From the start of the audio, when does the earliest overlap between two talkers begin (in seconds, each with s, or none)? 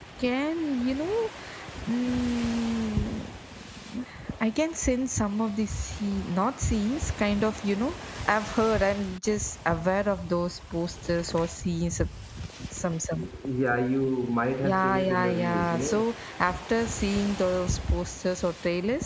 14.6 s